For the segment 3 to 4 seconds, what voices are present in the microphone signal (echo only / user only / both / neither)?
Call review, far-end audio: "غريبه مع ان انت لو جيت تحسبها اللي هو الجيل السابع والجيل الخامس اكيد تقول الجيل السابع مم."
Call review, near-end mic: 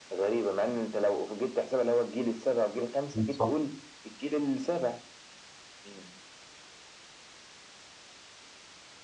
both